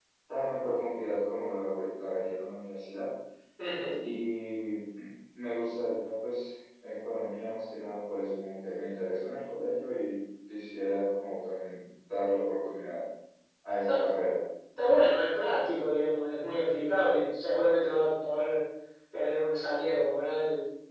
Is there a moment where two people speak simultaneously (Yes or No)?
No